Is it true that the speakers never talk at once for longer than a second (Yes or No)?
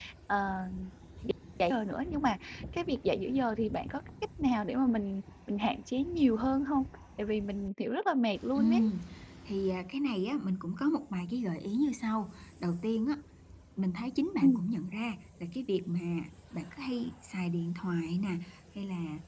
Yes